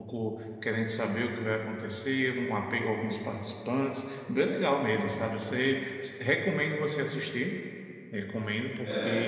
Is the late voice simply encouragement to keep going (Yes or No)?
Yes